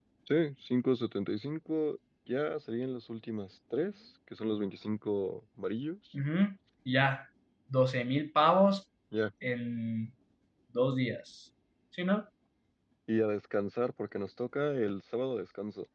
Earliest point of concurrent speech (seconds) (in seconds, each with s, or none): none